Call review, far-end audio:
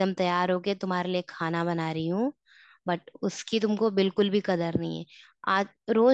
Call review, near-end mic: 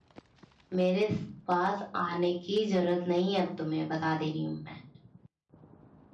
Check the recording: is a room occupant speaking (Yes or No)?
Yes